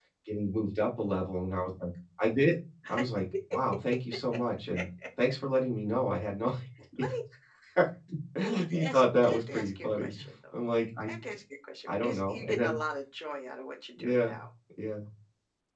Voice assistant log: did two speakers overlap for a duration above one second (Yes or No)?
Yes